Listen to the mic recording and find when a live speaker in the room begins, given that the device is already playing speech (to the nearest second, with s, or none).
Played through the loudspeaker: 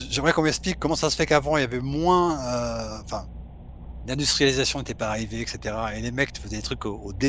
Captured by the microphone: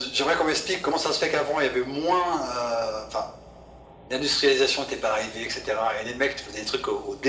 none